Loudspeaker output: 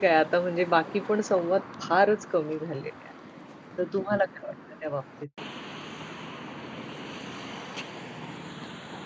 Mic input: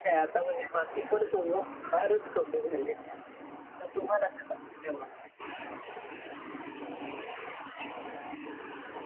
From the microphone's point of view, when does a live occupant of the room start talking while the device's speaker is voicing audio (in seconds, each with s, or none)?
none